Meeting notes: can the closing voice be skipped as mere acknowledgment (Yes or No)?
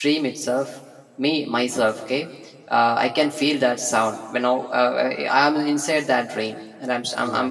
Yes